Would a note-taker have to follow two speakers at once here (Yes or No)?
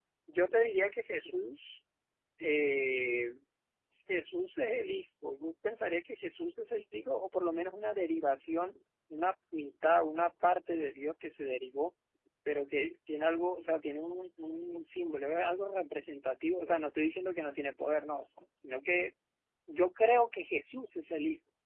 No